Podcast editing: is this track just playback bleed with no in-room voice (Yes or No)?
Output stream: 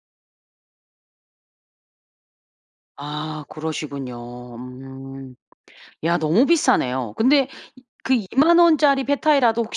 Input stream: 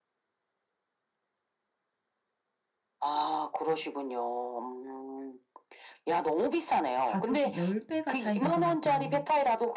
No